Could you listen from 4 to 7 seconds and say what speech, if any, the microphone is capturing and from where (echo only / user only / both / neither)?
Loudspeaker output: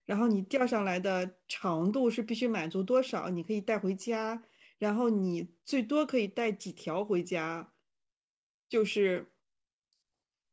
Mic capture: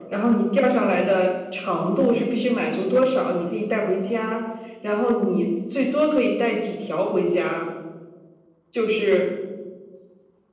echo only